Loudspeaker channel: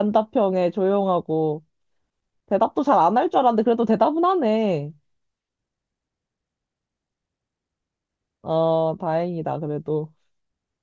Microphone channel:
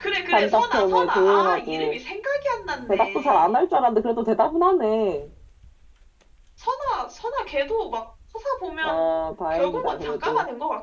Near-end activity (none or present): present